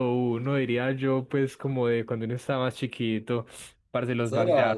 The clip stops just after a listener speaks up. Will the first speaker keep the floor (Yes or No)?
No